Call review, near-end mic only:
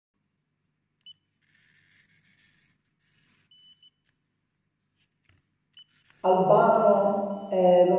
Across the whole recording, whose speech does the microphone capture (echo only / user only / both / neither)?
user only